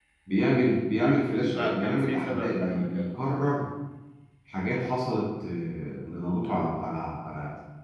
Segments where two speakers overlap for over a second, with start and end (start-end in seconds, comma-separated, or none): 1.5-3.0